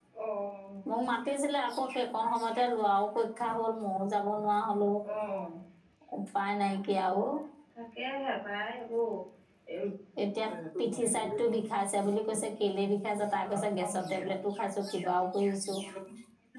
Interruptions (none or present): none